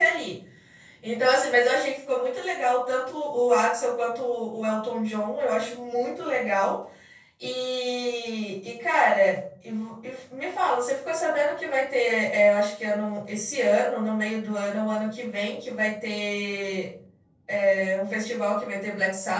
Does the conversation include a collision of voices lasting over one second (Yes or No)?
No